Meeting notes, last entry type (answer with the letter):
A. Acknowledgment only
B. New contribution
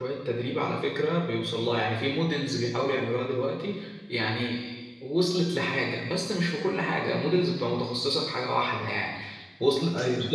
A